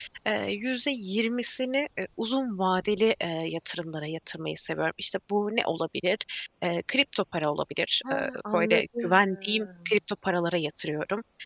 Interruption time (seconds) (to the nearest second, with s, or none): 8 s